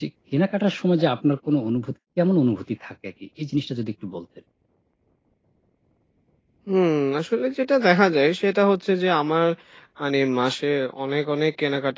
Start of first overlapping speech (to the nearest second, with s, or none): none